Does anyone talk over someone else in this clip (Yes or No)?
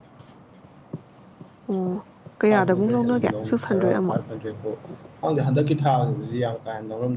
Yes